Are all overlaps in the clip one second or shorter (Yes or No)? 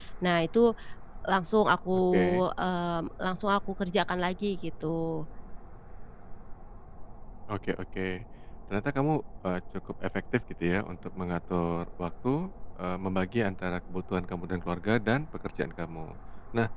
Yes